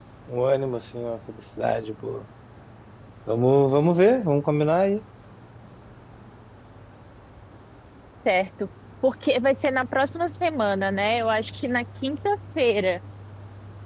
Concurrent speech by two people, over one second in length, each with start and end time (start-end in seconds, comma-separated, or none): none